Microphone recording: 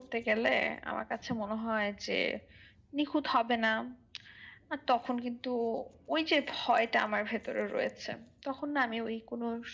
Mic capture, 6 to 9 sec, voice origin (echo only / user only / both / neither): echo only